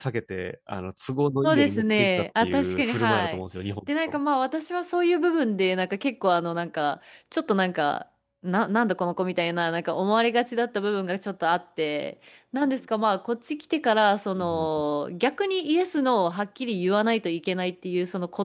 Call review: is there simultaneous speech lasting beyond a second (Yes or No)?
Yes